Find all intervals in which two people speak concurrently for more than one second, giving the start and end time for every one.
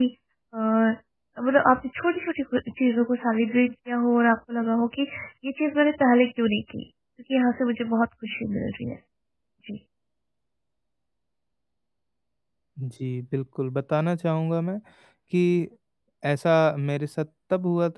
none

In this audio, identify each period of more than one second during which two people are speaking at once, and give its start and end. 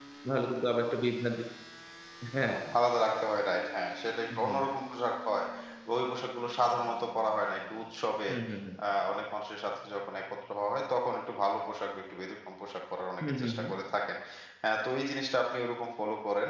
none

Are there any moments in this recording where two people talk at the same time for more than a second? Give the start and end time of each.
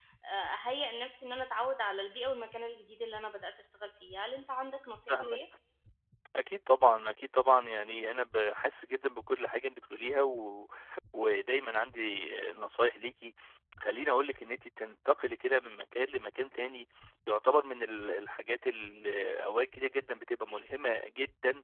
none

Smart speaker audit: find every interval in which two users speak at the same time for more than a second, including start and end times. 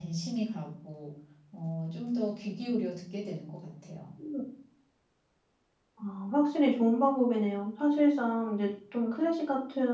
none

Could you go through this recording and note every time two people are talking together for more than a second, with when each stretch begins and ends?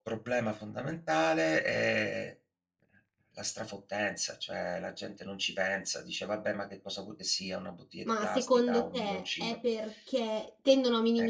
8.1-9.6

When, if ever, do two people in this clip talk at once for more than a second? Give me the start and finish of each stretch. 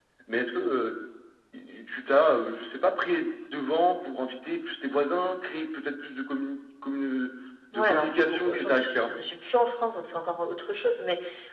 7.8-9.1

